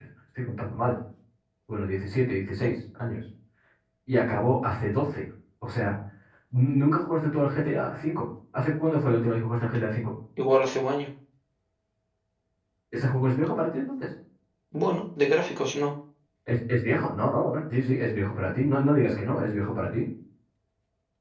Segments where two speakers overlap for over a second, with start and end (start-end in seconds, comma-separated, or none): none